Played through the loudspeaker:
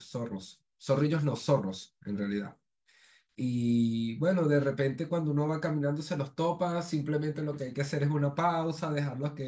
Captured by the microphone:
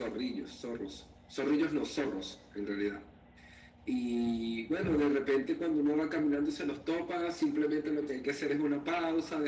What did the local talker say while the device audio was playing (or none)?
none